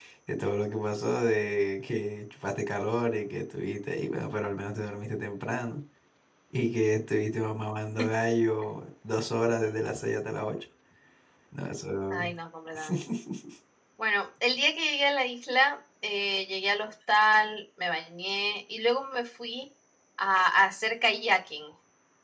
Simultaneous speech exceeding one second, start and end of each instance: none

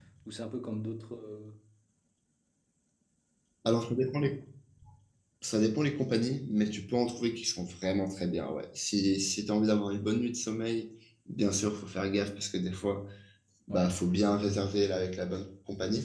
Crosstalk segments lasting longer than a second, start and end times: none

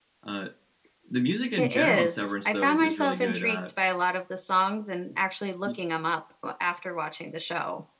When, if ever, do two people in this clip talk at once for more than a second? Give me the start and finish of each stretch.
1.6-3.6

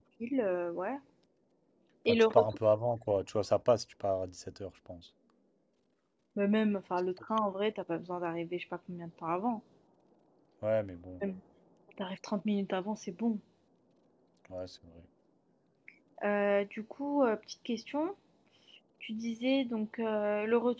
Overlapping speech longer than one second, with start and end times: none

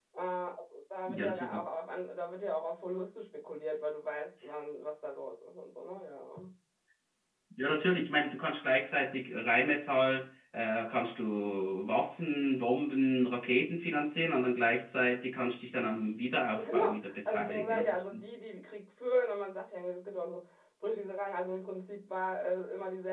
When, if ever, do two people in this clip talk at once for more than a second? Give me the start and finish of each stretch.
16.6-17.9

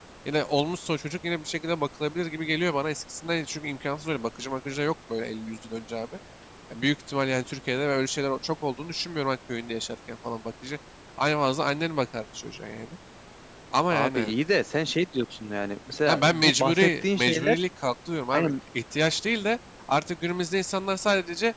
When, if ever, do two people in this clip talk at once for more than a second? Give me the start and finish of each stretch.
16.1-17.6

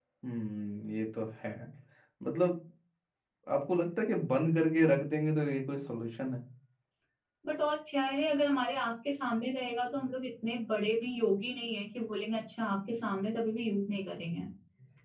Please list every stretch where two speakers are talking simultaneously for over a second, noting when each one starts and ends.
none

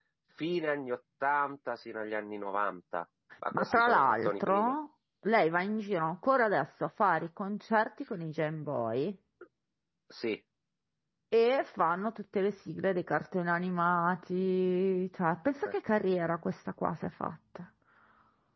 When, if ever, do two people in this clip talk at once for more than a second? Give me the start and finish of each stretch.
3.5-4.7

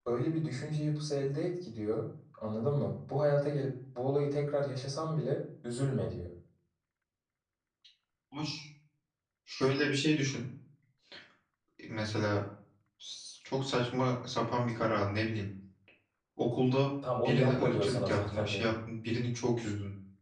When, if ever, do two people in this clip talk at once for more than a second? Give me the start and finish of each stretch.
17.2-18.7

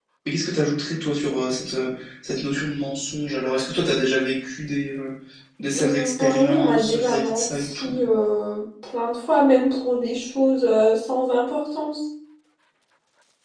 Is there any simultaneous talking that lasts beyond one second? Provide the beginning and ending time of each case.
5.7-7.9

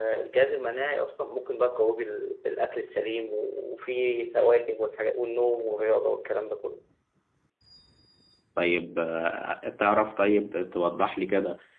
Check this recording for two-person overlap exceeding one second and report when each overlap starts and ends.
none

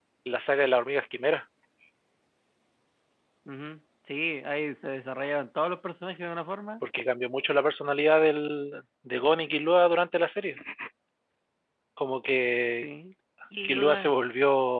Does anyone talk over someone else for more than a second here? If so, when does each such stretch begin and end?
none

